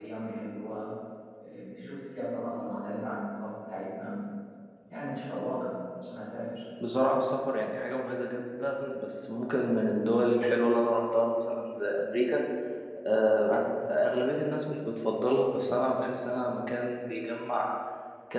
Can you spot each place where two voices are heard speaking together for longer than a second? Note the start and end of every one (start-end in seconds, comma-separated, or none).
none